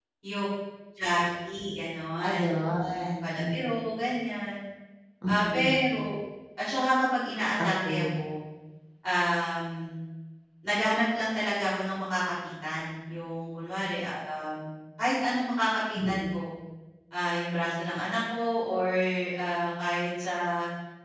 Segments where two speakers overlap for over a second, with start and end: 2.2-3.5

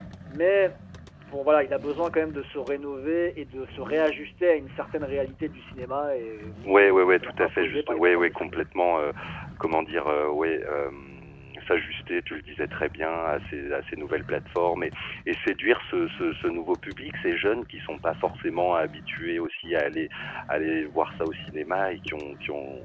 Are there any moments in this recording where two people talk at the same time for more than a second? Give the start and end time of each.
6.7-8.6

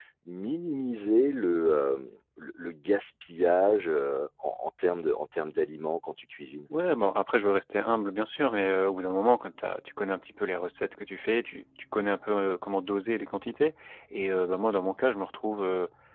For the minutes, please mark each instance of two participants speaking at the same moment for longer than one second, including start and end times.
none

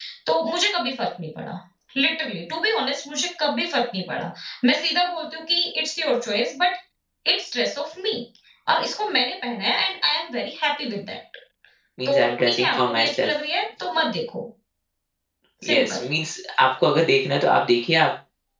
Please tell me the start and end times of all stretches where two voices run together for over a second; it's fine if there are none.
12.0-13.3

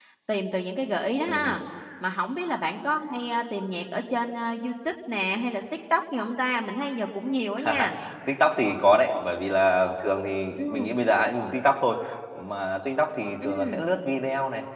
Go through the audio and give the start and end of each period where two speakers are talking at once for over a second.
none

